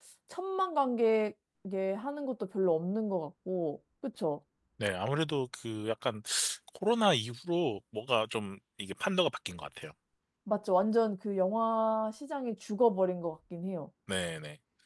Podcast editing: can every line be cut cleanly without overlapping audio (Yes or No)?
Yes